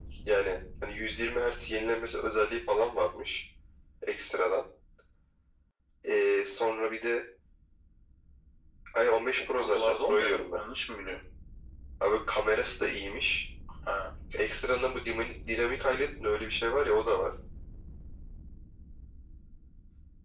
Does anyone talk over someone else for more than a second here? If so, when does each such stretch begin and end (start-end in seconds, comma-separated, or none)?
9.4-10.6